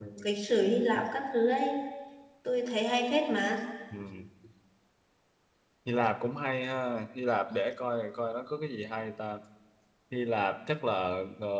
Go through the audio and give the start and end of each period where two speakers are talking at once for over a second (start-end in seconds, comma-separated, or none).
none